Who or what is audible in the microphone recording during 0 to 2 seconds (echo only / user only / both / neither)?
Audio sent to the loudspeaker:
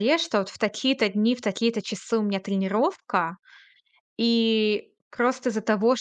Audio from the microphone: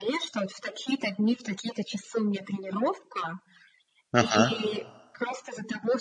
echo only